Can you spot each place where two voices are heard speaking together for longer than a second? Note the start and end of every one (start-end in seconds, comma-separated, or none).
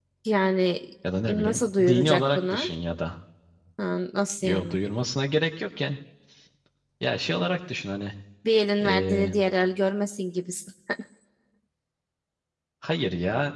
1.3-2.7